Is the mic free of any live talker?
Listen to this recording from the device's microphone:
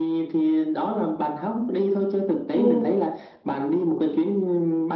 No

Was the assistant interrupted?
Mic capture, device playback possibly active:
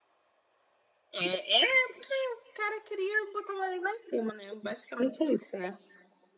No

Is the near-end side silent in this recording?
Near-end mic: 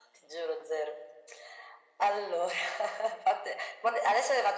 Yes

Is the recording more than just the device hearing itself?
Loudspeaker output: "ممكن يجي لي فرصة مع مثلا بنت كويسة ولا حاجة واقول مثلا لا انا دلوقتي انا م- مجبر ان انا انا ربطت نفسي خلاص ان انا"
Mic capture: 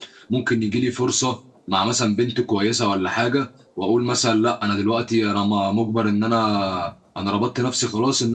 No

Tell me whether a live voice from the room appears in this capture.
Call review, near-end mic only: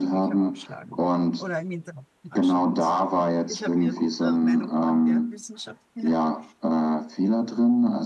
Yes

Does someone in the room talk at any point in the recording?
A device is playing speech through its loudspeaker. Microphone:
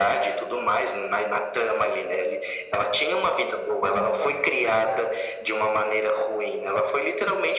Yes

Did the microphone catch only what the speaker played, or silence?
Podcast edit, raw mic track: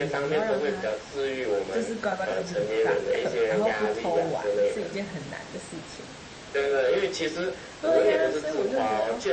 No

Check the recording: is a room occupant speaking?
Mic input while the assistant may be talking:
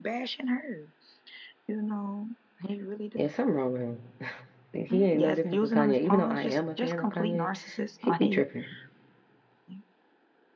Yes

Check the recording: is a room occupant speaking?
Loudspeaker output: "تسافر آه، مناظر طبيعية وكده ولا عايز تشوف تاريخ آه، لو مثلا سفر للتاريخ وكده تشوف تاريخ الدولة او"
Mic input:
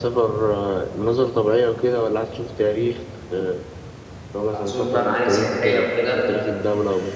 Yes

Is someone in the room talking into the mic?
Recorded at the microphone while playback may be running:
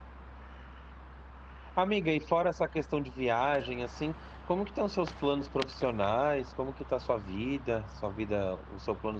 Yes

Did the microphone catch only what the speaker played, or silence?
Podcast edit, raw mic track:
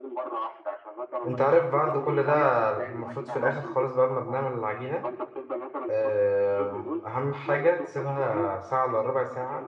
No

